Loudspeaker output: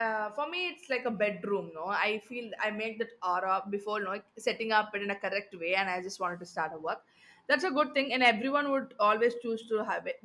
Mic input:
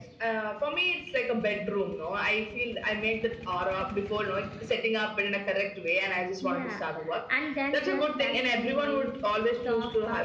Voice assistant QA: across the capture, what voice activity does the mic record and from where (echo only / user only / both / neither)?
both